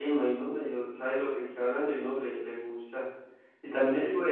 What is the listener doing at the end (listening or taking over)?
listening